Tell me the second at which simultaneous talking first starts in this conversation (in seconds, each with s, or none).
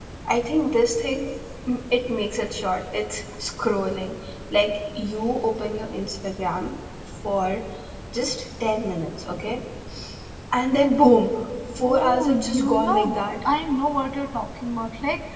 11.8 s